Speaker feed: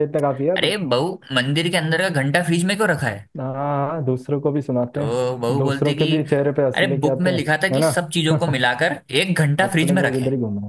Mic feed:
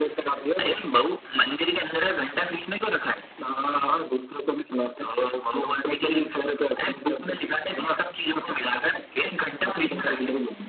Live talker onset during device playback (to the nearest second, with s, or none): none